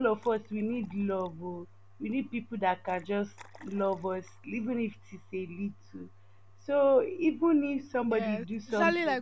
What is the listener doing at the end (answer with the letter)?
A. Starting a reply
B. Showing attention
A